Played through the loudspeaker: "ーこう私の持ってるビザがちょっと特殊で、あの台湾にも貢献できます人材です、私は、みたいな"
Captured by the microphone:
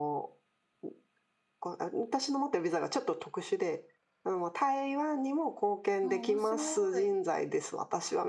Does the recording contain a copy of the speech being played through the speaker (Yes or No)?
Yes